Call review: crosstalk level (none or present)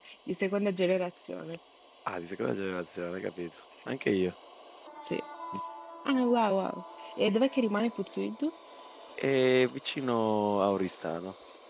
none